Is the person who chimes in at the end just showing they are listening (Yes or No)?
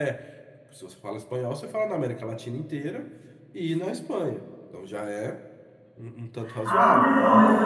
No